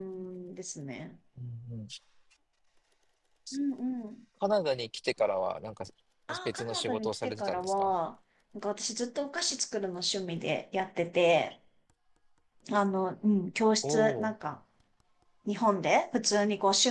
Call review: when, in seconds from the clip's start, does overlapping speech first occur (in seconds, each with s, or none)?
6.5 s